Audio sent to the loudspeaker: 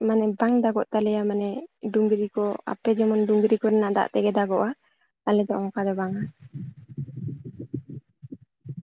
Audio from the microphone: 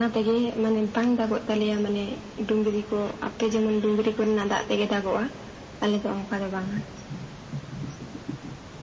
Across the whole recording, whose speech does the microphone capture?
echo only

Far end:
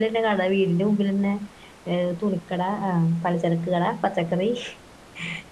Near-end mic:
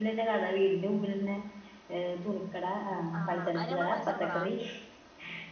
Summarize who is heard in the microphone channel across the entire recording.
both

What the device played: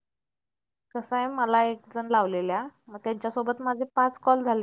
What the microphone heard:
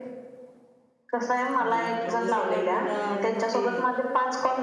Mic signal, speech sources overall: both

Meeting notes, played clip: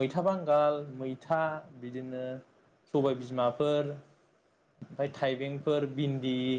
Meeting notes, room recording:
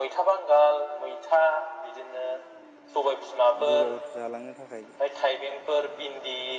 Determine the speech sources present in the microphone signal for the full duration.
both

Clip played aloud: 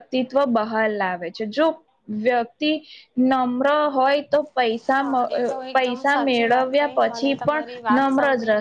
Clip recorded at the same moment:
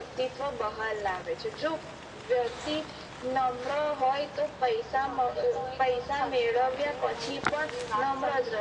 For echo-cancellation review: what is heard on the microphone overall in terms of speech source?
echo only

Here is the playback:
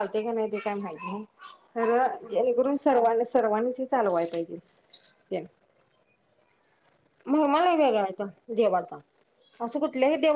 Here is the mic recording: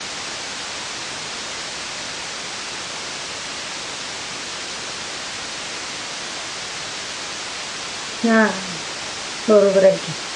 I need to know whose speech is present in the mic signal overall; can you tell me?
user only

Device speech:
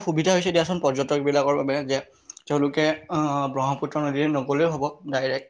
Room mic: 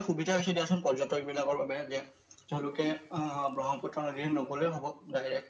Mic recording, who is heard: echo only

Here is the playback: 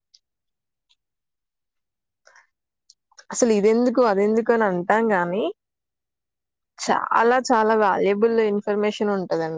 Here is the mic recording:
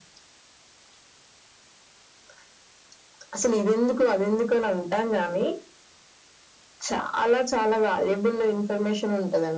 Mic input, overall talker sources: echo only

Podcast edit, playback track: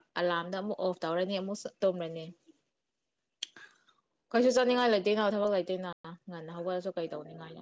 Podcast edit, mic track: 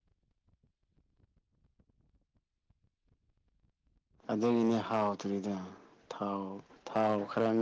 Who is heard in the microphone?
user only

